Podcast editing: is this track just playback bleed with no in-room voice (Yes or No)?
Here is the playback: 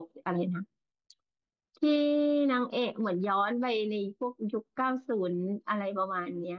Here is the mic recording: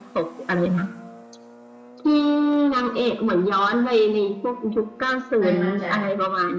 No